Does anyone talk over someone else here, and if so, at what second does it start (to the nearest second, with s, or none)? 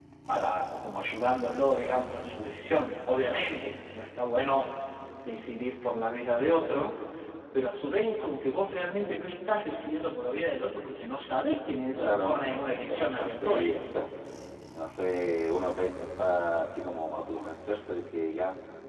12 s